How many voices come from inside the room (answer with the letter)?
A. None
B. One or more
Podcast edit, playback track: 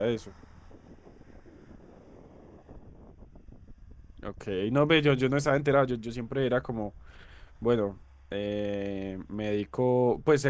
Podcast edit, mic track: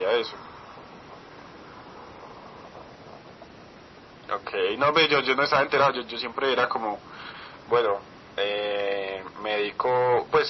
A